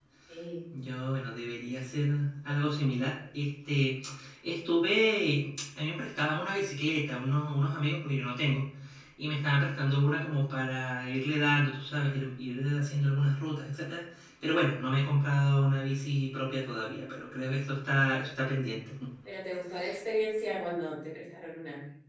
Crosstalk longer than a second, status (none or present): none